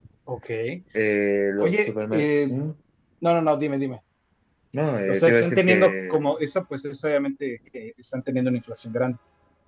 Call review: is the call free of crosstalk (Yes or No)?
No